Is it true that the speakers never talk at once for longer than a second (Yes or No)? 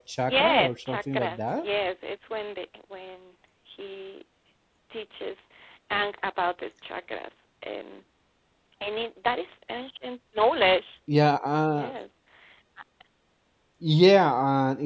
No